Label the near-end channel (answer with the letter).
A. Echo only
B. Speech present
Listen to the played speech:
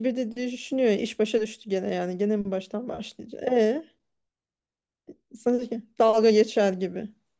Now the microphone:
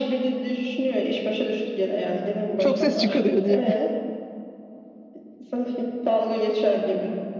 B